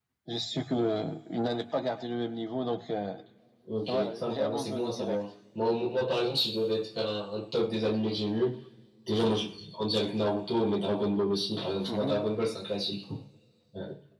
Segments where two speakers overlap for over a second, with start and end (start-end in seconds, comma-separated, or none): 3.9-5.2